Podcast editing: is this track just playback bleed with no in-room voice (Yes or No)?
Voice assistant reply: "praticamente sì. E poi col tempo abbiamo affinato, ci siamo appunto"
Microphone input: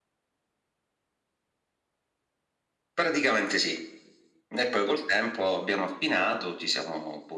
No